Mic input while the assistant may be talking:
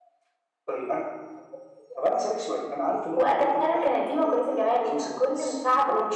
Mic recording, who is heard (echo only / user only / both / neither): echo only